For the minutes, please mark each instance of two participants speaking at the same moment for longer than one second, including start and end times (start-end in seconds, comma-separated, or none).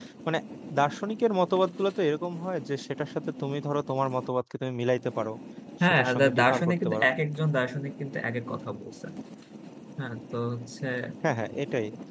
5.8-7.1